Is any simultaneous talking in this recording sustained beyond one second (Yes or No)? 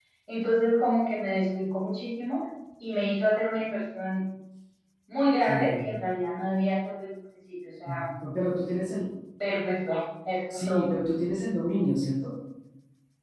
No